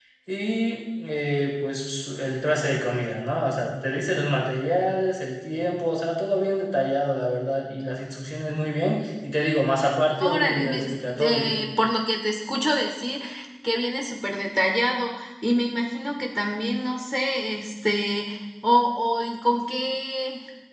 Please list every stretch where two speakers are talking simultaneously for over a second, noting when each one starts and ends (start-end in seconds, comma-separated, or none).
10.2-11.5